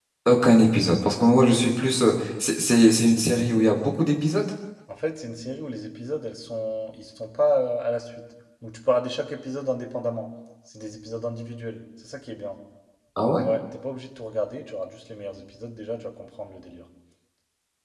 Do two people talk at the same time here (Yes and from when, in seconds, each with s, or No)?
No